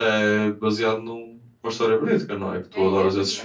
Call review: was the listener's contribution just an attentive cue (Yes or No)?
No